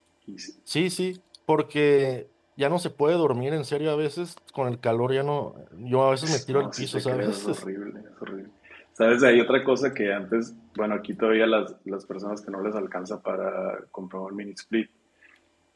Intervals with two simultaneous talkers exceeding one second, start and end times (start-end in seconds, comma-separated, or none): 6.2-7.6